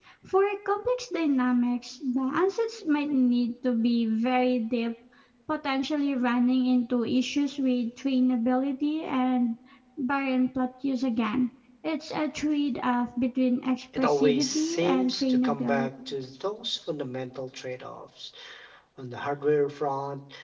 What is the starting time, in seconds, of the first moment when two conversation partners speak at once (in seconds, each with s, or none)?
13.9 s